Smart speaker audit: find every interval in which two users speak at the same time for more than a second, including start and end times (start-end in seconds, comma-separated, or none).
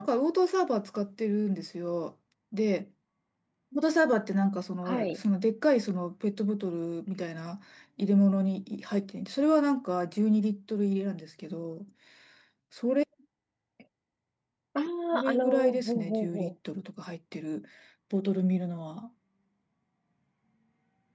15.2-16.5